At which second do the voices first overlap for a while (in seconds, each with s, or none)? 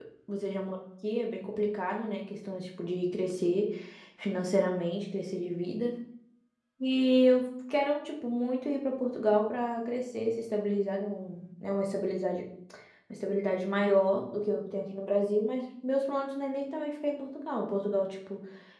none